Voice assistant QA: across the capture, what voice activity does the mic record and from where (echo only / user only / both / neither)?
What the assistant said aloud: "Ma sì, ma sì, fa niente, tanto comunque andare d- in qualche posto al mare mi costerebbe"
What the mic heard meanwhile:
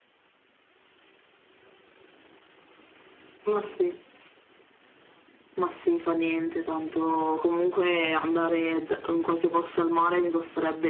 echo only